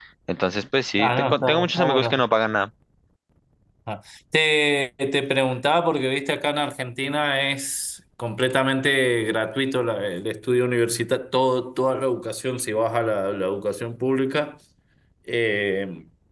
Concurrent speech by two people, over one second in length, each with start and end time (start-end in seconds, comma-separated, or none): 1.0-2.2